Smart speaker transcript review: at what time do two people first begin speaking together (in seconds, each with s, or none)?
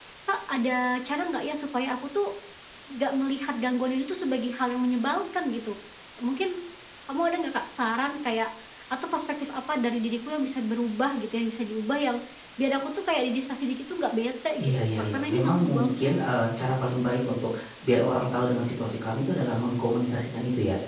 14.6 s